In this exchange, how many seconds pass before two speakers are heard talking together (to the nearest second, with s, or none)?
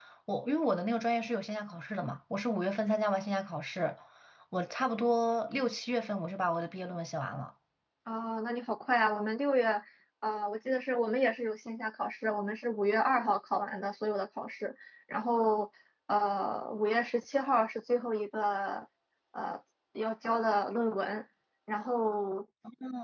none